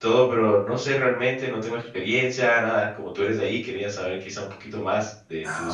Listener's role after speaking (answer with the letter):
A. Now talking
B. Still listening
A